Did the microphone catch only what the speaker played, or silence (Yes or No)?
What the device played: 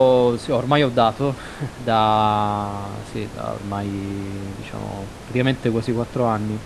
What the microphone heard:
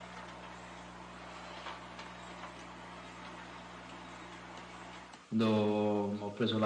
No